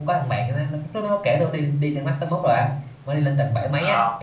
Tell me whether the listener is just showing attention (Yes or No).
Yes